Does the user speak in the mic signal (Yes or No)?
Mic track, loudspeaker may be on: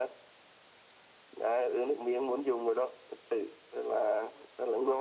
No